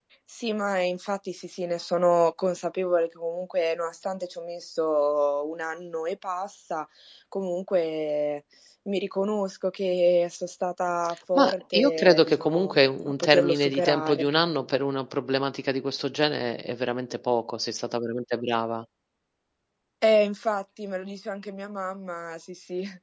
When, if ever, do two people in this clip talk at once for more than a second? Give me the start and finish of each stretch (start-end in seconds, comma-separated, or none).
11.4-14.3